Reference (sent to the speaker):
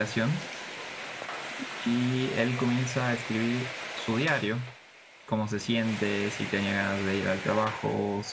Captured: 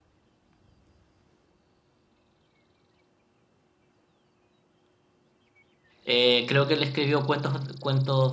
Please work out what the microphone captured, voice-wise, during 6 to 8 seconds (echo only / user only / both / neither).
user only